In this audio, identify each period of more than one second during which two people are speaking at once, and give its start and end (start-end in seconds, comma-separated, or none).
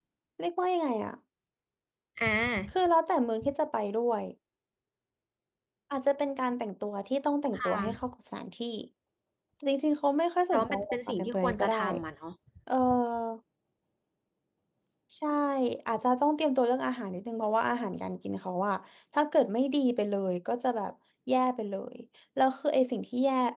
10.5-11.8